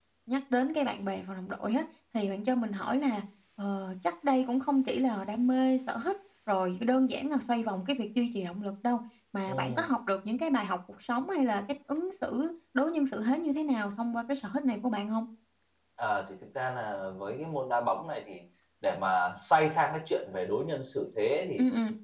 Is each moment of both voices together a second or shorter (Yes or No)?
Yes